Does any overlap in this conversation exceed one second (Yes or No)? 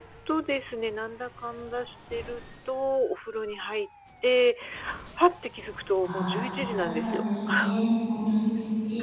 Yes